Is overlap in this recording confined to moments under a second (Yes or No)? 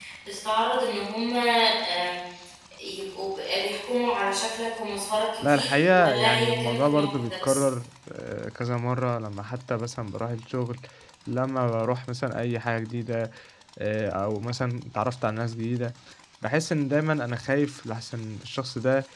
No